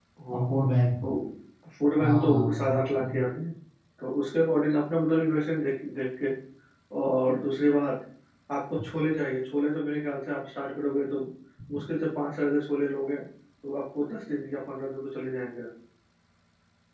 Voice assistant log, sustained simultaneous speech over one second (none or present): present